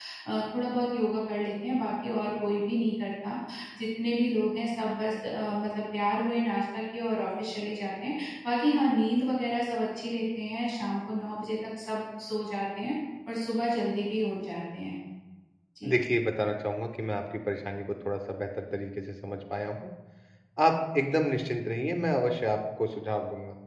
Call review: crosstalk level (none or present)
none